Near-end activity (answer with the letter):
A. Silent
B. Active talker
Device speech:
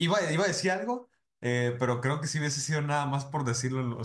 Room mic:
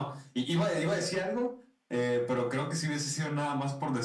A